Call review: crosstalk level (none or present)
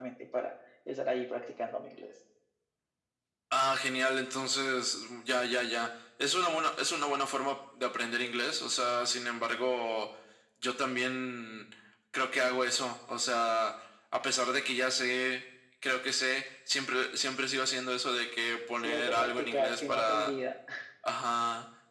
present